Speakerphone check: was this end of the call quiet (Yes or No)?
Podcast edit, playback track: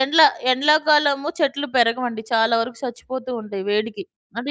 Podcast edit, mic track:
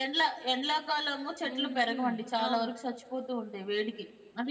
No